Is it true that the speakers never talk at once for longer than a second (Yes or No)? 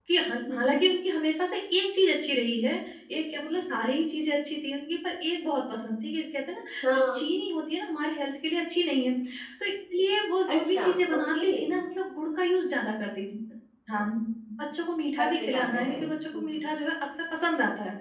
No